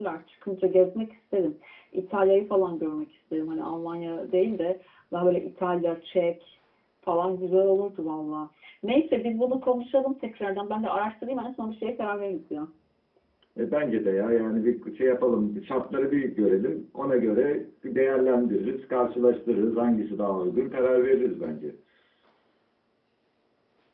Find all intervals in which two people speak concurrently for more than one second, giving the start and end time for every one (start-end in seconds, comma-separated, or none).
none